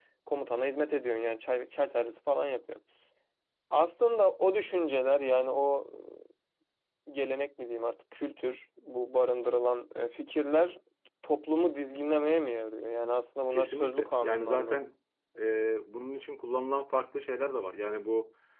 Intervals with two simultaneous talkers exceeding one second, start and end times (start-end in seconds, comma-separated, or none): 13.5-14.8